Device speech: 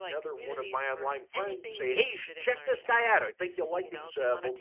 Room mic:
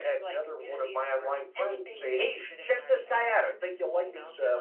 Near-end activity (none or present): none